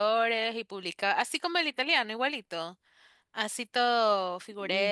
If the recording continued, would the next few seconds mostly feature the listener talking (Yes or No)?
Yes